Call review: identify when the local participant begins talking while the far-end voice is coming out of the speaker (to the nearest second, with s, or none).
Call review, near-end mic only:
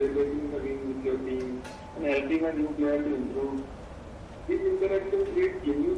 none